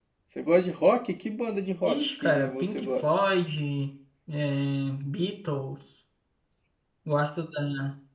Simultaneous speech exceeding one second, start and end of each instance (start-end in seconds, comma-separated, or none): 1.8-3.1